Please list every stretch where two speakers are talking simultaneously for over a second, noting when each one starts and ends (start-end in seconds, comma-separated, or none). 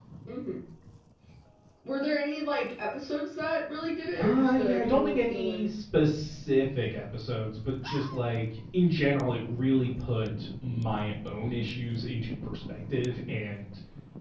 4.2-5.8